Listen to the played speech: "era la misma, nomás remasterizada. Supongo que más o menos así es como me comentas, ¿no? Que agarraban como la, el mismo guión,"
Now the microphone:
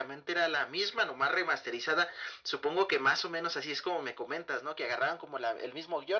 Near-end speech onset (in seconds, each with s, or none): none